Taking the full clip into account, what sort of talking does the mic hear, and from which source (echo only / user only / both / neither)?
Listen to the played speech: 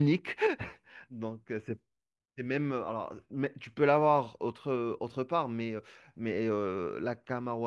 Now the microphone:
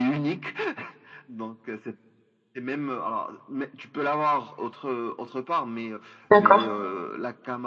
both